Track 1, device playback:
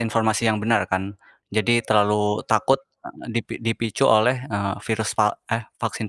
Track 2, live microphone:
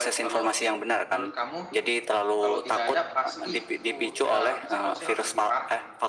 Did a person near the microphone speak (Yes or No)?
Yes